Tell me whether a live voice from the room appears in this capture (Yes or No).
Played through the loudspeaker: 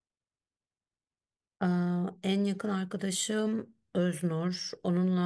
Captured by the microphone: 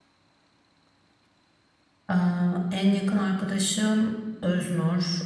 No